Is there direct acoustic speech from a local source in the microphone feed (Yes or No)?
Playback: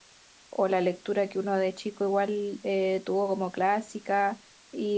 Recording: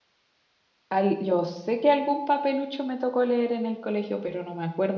Yes